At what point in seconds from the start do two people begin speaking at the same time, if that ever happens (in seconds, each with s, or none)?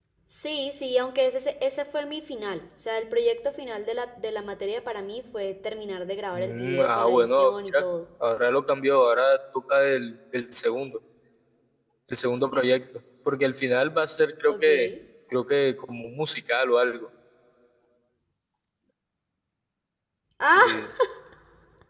6.3 s